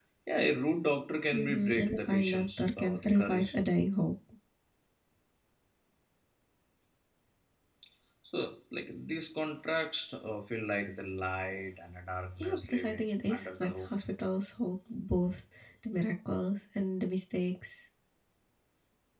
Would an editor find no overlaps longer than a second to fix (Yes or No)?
No